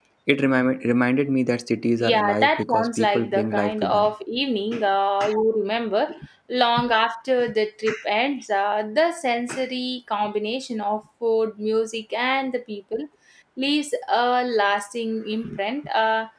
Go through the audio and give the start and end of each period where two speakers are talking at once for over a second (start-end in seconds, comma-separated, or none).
2.0-4.1